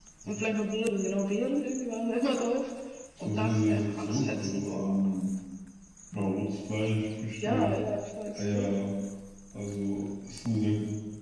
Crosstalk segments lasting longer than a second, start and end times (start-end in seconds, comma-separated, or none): 3.2-5.0